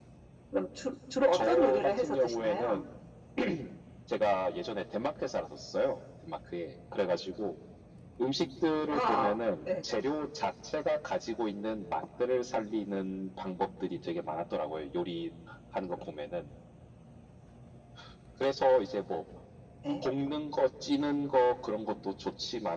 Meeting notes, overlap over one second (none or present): present